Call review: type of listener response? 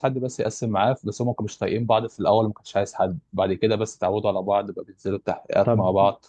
taking over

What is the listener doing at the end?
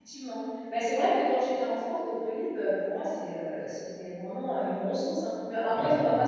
listening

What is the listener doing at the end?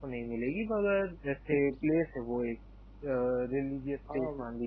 taking over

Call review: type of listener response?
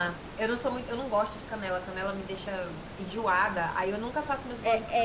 taking over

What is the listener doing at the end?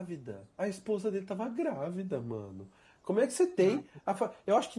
listening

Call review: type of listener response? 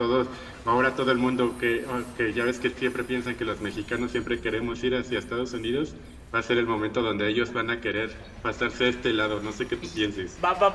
taking over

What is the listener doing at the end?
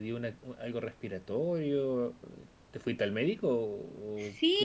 taking over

